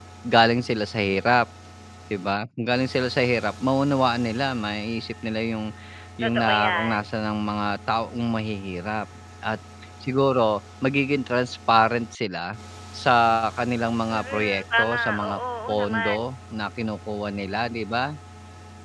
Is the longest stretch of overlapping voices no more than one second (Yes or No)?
No